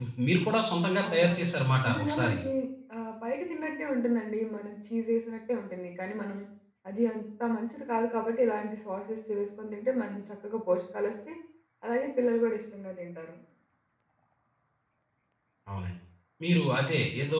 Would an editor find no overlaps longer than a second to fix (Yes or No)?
Yes